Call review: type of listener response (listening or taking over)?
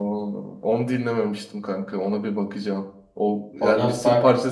listening